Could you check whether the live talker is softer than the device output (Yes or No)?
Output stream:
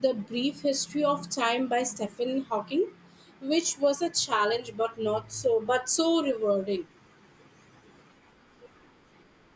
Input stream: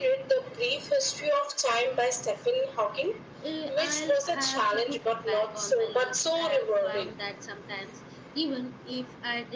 Yes